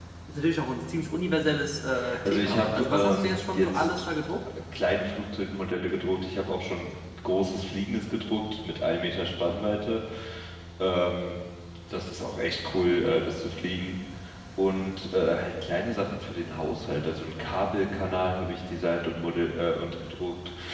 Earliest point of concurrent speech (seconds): 2 s

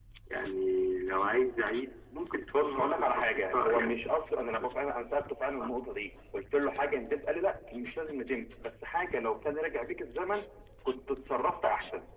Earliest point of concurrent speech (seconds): 3 s

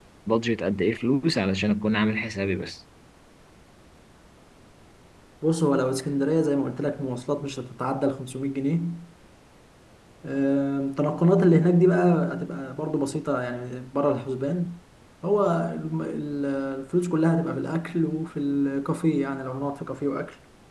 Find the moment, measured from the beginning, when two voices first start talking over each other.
none

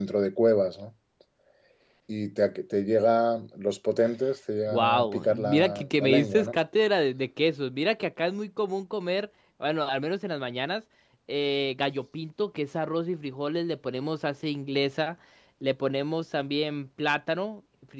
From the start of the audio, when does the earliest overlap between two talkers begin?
5 s

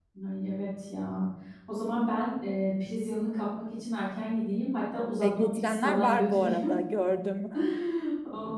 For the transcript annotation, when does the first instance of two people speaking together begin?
5 s

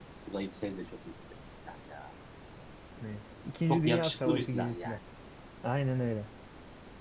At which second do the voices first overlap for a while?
4 s

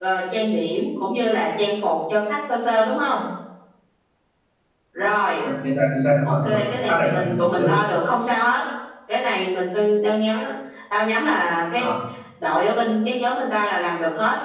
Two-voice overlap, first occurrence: 6 s

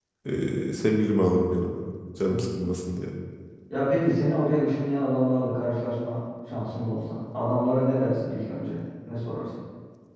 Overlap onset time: none

